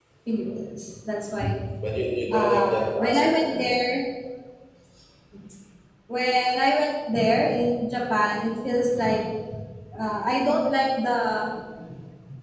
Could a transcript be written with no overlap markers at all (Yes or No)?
No